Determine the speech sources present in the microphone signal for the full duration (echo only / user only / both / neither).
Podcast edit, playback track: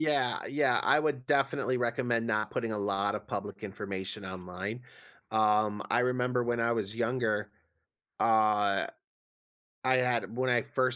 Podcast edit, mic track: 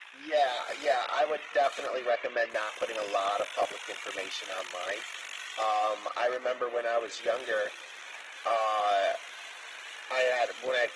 echo only